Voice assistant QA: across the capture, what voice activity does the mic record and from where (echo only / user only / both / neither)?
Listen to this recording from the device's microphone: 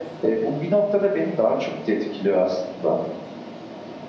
echo only